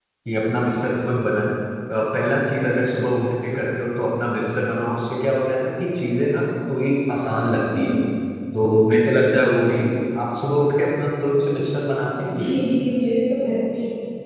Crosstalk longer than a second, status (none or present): none